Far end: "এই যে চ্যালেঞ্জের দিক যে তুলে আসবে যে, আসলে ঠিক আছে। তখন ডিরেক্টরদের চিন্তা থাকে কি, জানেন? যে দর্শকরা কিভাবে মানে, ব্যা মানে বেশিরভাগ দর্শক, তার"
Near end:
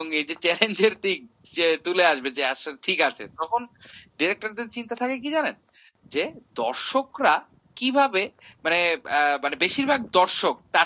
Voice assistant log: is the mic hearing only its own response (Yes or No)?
Yes